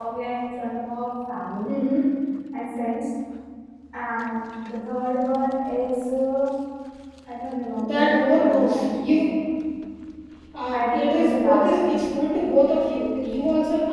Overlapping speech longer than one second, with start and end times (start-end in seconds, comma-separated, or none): 7.8-9.2, 10.7-12.0